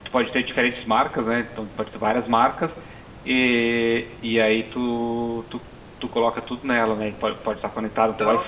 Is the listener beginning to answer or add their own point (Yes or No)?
No